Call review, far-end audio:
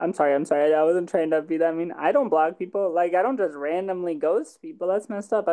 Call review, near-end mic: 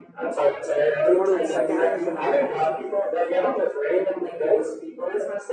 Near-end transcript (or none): Is Immortal the second highest or the highest?